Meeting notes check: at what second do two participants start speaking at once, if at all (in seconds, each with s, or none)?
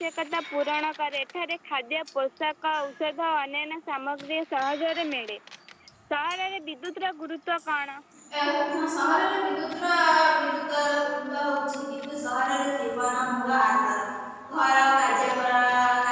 none